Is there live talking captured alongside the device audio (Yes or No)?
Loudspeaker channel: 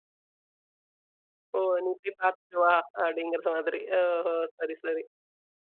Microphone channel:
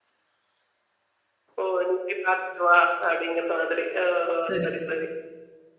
Yes